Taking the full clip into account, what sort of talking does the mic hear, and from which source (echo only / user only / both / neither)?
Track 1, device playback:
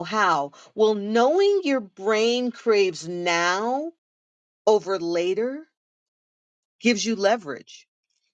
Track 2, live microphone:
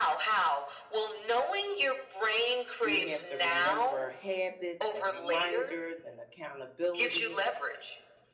both